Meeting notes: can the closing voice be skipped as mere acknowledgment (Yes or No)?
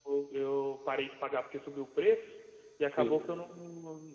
Yes